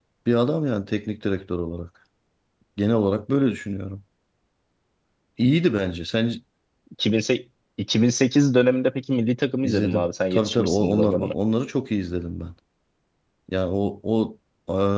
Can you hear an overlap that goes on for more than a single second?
Yes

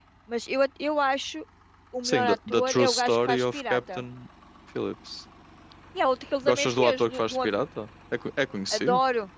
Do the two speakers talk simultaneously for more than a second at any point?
Yes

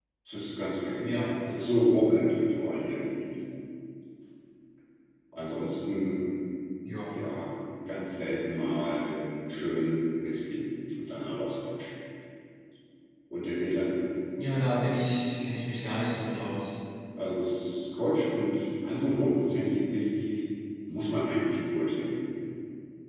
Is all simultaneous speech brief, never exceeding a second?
Yes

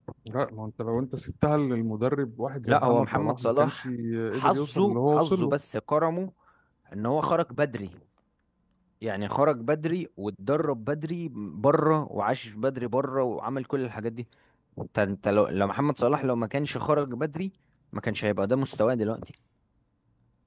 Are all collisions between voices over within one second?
No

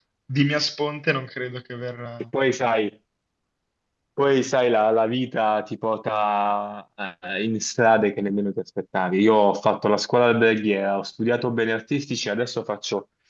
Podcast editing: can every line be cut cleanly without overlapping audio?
Yes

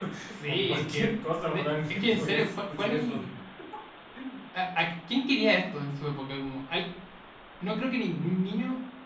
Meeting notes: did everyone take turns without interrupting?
No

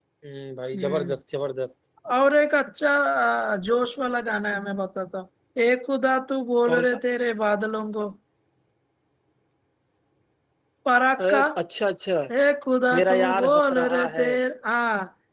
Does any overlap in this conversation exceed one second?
Yes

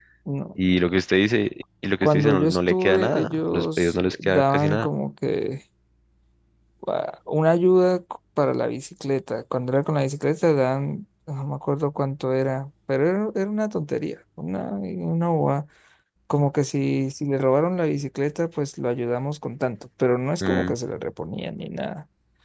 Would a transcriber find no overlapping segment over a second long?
No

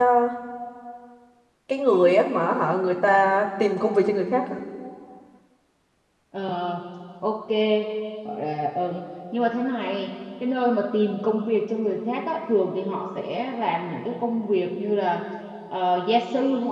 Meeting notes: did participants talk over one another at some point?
No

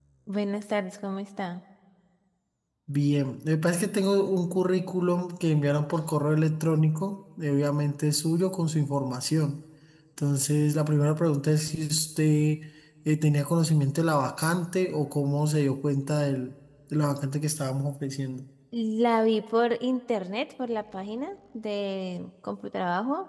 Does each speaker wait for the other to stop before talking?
Yes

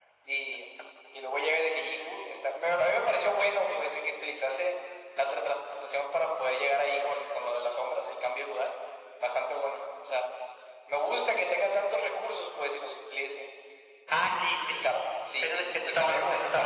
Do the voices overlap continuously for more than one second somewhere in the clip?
Yes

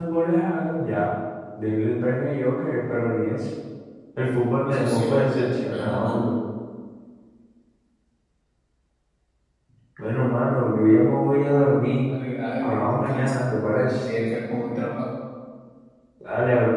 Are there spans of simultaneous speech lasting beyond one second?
Yes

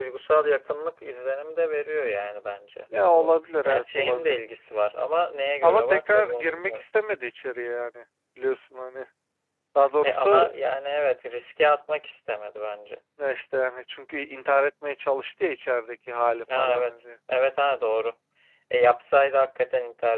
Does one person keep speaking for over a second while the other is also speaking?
Yes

